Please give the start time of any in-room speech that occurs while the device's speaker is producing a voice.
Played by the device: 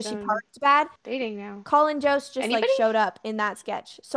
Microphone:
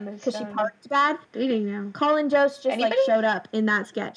none

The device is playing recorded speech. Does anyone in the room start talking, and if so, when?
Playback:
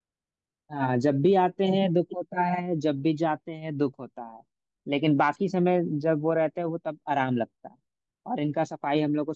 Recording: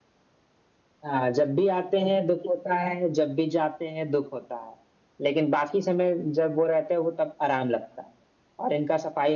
none

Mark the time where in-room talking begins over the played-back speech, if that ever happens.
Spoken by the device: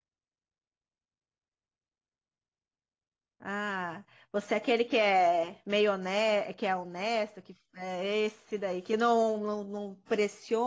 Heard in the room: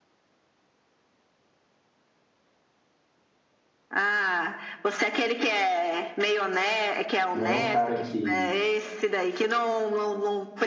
7.3 s

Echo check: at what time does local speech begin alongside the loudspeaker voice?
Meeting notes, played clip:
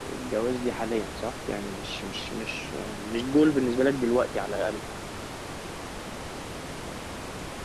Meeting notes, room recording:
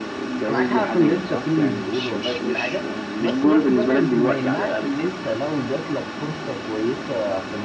0.5 s

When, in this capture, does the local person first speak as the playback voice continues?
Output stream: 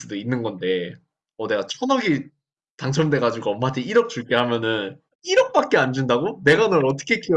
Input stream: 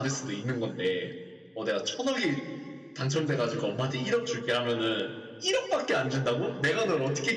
none

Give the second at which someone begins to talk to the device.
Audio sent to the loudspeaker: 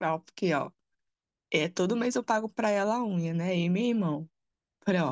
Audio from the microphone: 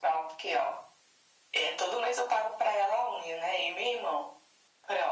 none

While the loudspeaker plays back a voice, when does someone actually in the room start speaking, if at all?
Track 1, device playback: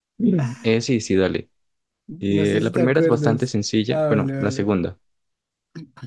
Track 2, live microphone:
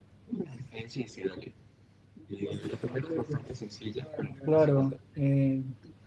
4.5 s

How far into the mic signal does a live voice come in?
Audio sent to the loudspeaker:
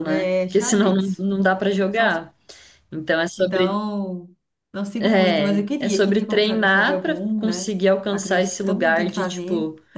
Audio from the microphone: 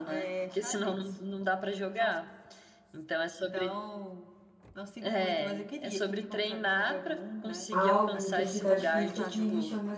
7.7 s

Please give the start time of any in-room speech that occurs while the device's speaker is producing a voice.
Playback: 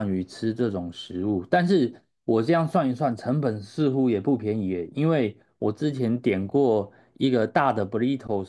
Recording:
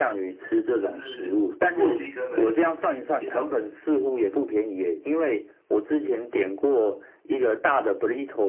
0.8 s

